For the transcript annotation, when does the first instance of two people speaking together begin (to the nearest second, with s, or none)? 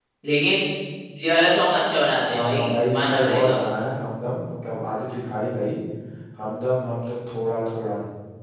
2 s